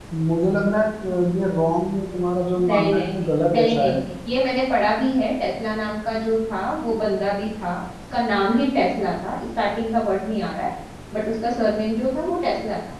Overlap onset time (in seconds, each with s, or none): 2.5 s